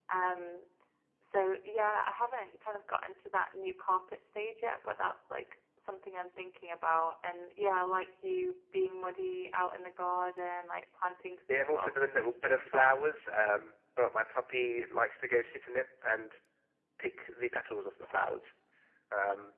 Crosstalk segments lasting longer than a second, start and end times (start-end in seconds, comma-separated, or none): 11.5-13.2